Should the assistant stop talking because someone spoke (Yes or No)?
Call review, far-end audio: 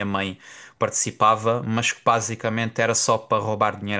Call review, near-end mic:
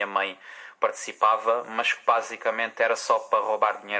No